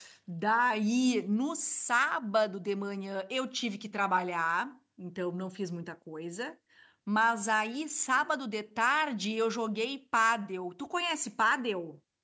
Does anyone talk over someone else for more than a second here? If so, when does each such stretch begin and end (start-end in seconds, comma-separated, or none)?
none